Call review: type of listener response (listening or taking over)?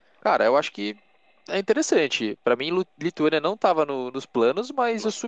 listening